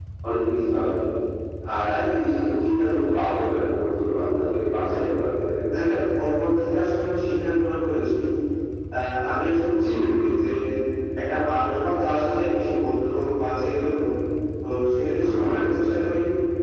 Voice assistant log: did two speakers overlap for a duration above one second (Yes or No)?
No